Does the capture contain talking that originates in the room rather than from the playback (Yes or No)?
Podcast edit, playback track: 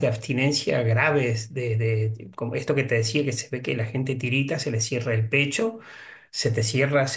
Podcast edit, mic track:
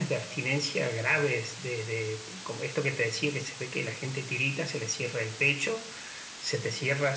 No